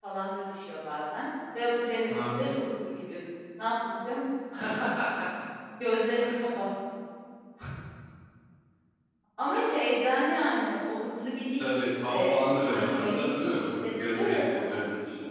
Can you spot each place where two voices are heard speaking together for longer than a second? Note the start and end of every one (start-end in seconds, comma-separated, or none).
11.6-14.8